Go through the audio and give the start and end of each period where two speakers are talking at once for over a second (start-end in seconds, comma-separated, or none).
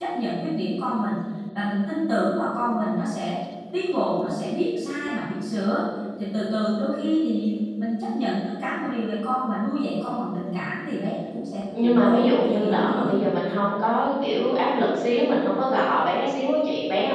11.8-13.1